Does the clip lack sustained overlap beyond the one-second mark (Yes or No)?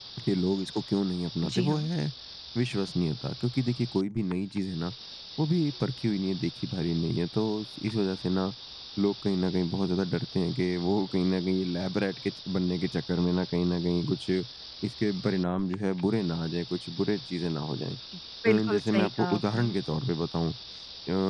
No